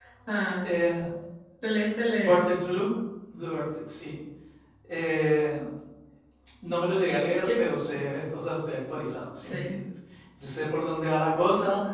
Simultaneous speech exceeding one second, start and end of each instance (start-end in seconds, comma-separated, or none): none